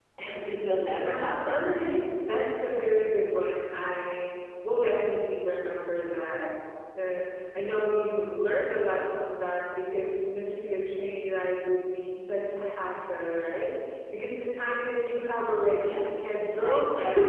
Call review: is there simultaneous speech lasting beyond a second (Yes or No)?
Yes